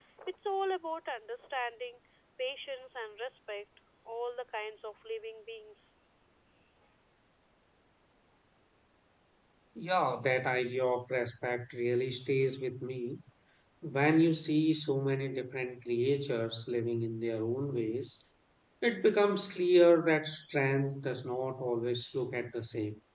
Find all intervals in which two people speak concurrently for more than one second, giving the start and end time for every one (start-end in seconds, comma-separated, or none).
none